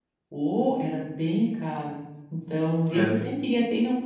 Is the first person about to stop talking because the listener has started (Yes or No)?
No